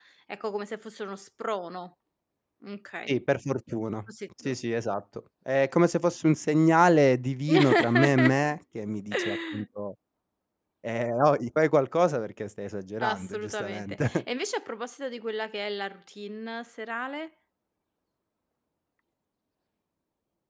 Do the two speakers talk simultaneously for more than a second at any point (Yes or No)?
Yes